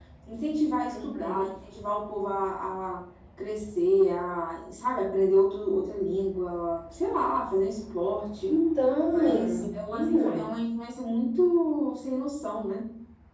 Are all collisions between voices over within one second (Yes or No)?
No